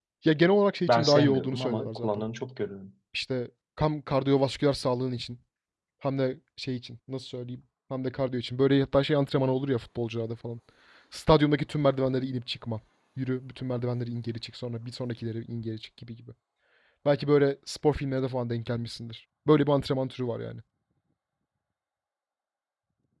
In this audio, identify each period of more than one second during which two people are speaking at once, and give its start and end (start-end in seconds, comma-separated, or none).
0.9-2.2